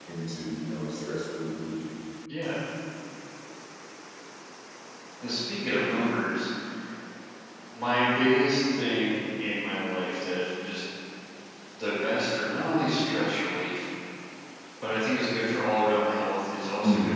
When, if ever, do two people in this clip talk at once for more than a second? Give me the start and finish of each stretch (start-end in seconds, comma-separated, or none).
none